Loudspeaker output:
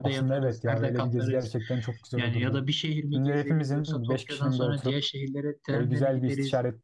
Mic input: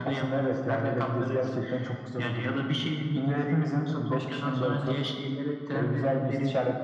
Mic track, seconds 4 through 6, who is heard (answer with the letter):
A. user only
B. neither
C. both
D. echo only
D